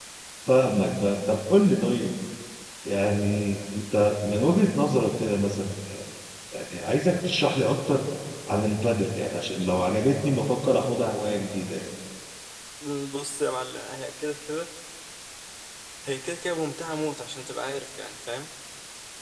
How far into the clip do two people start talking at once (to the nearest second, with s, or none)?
none